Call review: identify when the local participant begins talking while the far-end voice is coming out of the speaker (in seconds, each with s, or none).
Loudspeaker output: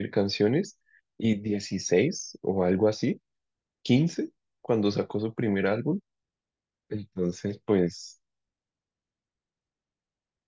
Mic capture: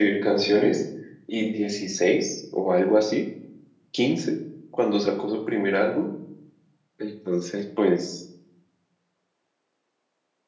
none